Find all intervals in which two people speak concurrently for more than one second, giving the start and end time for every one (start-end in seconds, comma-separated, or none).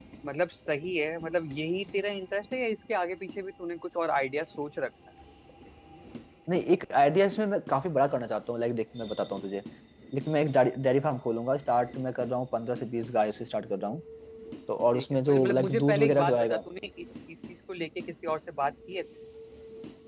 14.9-16.6